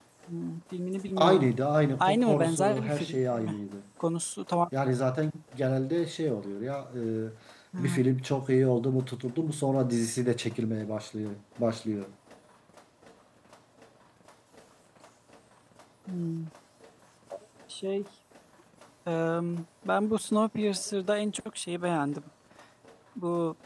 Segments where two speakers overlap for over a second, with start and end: 2.0-3.6

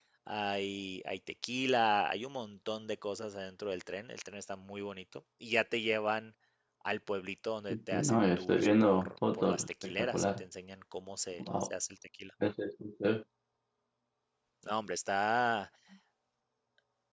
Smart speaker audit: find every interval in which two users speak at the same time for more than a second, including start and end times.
7.9-10.4

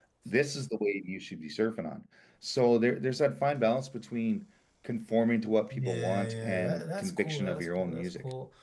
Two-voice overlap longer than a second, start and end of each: 5.7-8.1

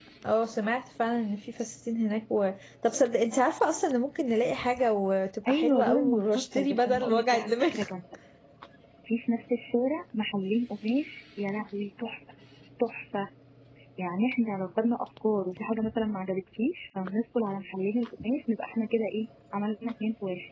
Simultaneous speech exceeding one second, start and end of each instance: 5.5-7.7

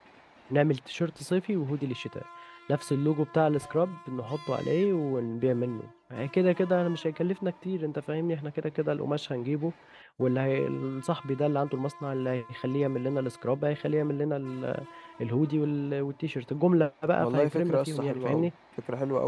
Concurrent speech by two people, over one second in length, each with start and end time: 17.2-18.5

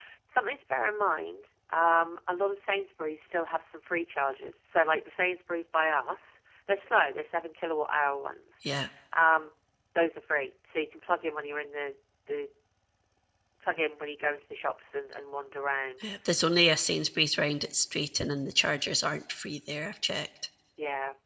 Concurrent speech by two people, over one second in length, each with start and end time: none

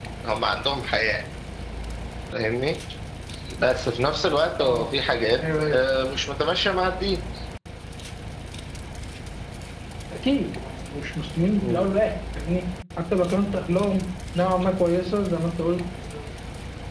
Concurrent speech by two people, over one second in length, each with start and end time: none

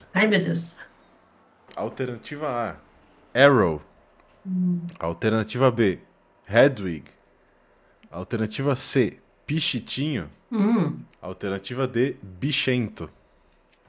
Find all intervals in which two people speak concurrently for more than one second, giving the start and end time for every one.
none

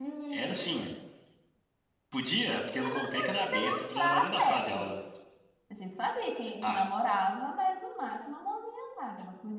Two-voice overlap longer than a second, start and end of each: 2.8-4.9

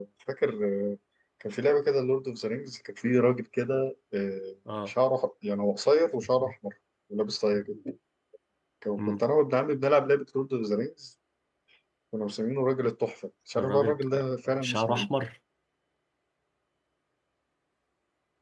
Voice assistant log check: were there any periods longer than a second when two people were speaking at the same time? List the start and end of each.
13.6-15.1

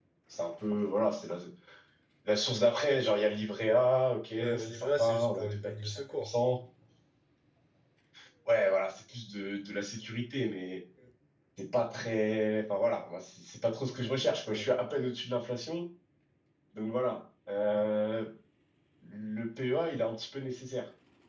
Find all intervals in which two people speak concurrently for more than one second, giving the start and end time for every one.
4.4-6.3

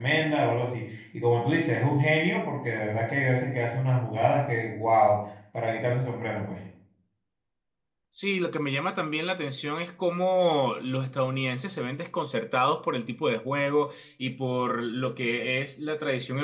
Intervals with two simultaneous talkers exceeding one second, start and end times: none

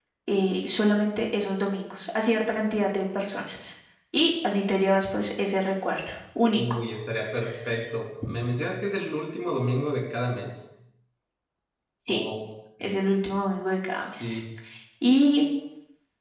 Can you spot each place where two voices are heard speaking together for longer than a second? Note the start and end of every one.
none

